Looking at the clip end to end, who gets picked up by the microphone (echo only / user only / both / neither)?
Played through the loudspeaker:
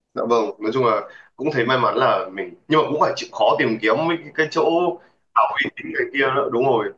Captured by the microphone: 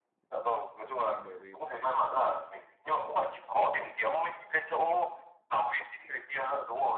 both